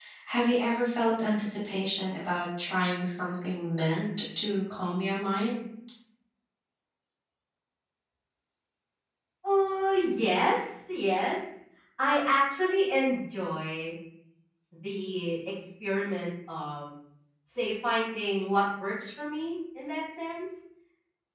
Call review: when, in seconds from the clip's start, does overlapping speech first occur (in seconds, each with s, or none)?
none